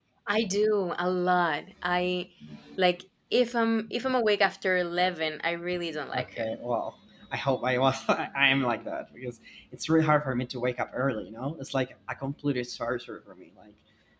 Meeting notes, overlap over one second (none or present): none